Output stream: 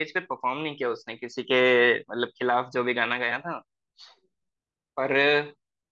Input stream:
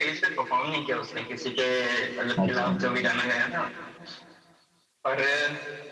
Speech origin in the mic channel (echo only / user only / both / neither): both